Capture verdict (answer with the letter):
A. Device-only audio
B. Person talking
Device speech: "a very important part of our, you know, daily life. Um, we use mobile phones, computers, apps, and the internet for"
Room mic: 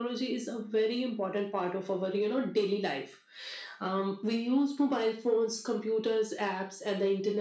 A